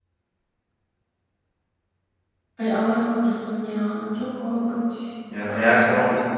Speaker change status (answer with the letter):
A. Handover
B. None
A